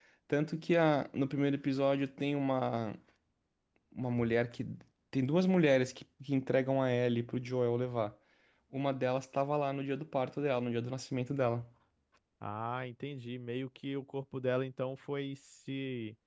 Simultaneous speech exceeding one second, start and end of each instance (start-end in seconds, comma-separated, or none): none